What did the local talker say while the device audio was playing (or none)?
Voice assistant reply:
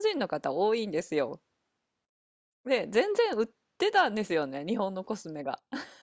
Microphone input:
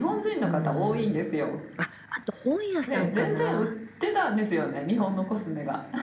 うん。あ、あと本屋さんかな。